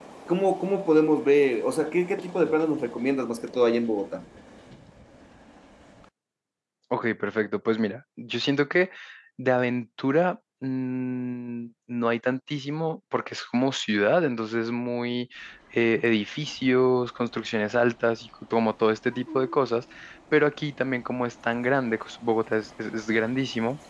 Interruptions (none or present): none